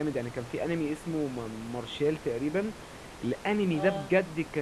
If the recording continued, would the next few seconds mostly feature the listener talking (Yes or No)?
No